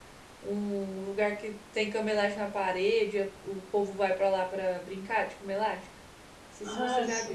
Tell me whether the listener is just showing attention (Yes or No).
No